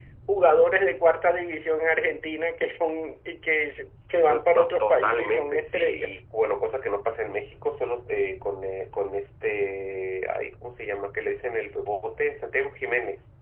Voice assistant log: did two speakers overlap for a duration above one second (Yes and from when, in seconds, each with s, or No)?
Yes, from 4.3 s